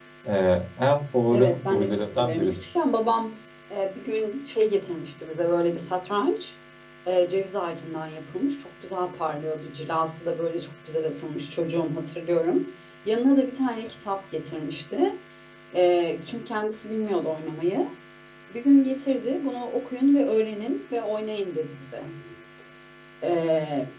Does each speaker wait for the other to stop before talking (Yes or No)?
No